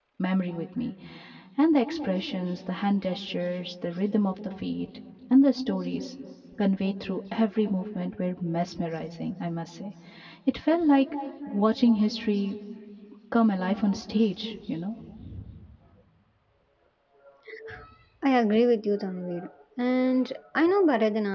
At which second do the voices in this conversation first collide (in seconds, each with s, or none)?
none